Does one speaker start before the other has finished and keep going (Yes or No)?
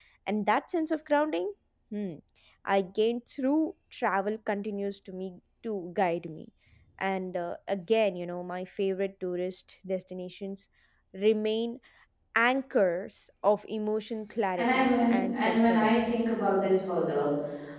Yes